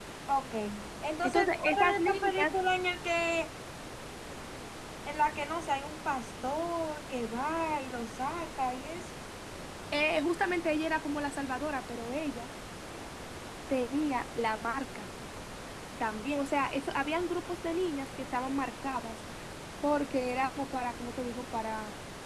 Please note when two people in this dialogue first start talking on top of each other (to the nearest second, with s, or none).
1 s